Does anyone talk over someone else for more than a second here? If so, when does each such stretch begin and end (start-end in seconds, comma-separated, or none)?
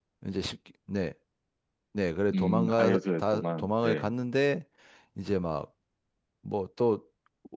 2.3-4.1